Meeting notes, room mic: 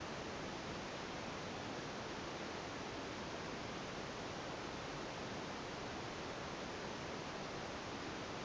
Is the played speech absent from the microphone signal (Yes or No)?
Yes